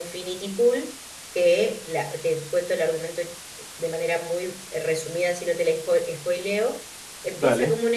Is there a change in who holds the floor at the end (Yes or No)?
No